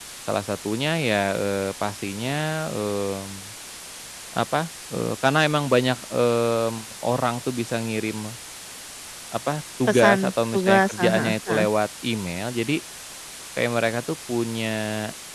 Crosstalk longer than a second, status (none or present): present